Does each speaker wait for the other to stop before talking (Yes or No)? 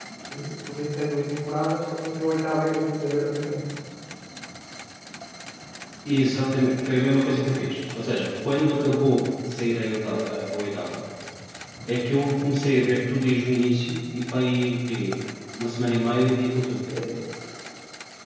Yes